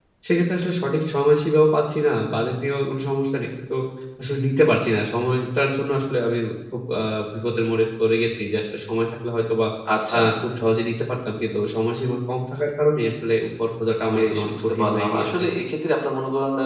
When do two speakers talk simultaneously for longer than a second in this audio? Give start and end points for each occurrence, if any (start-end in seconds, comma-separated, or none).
14.2-15.4